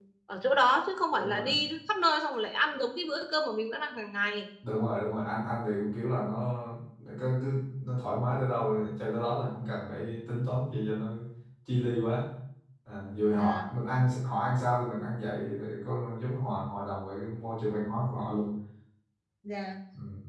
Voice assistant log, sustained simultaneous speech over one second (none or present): none